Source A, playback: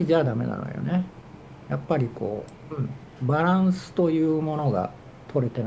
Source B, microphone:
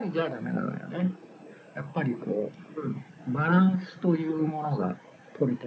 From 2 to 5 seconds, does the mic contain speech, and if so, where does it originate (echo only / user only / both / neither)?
echo only